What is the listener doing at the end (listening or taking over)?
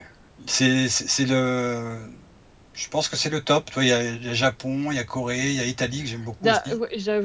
taking over